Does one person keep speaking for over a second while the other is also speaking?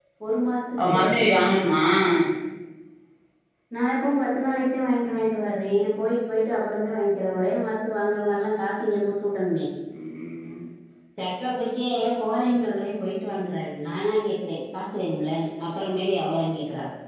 No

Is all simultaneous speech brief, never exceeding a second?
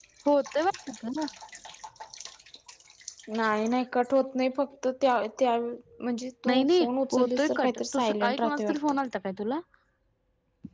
No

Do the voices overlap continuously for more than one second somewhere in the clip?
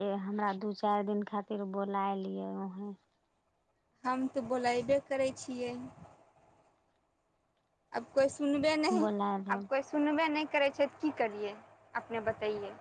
No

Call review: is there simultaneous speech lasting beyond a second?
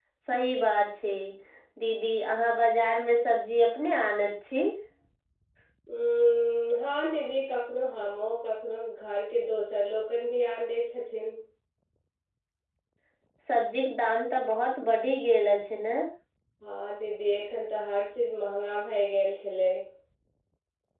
No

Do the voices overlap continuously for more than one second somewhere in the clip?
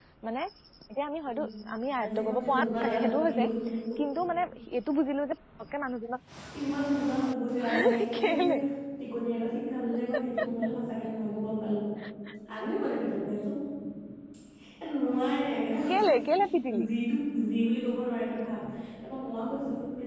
Yes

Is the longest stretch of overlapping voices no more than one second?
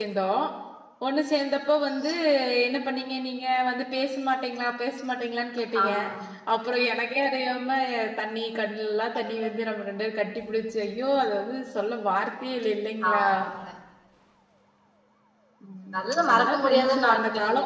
No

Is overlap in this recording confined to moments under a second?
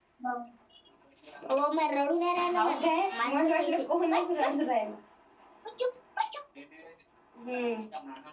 No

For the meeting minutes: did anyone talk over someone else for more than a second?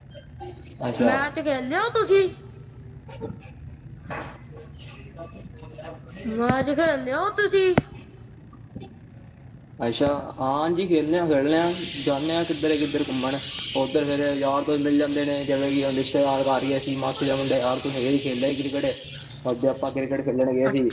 No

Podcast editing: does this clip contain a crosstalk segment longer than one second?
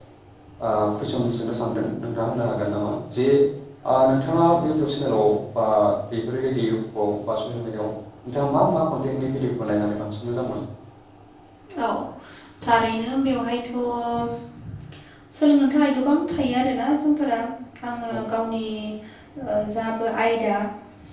No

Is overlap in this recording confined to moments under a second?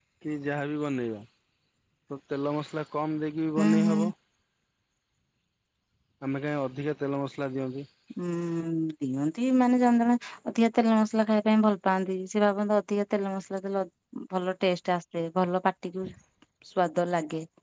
Yes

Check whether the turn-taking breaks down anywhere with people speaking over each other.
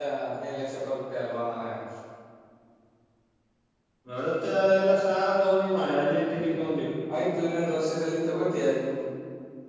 No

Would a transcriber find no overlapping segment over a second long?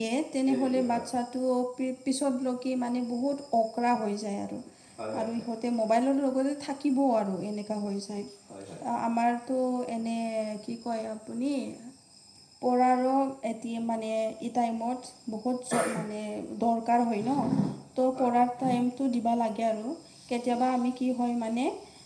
Yes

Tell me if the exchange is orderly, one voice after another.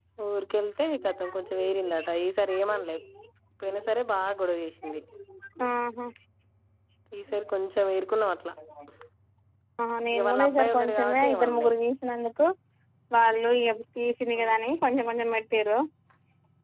No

